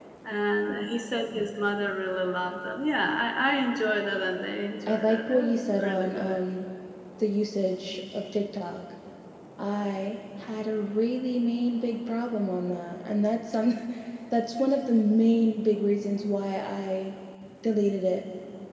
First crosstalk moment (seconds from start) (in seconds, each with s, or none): 4.9 s